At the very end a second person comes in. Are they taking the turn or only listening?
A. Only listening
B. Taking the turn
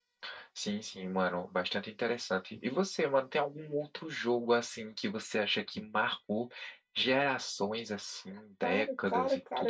B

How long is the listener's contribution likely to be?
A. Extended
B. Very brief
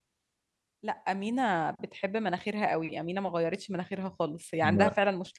B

